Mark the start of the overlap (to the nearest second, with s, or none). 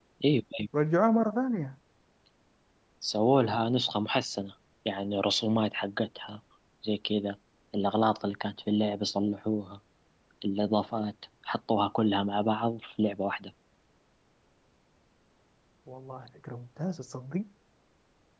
none